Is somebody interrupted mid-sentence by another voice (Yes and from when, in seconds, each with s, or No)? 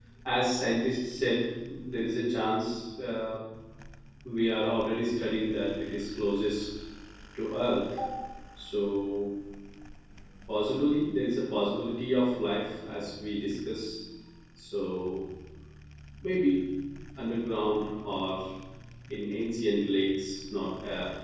No